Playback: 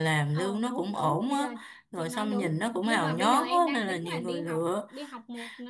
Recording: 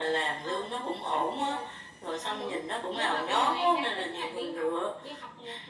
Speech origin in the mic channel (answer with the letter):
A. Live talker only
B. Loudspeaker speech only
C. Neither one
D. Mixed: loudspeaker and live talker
B